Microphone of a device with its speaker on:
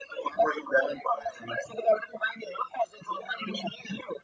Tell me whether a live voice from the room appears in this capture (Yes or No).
No